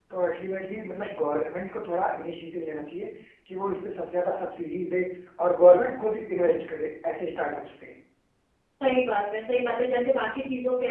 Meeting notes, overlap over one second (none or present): none